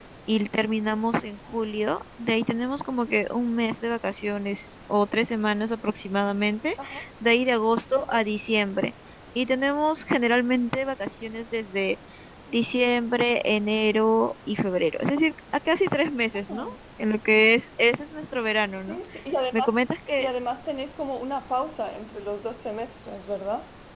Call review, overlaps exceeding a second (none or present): none